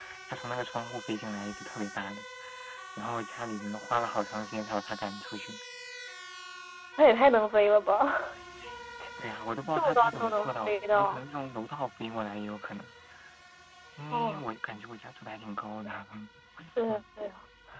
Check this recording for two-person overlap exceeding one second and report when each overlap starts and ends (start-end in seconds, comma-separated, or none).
9.7-11.2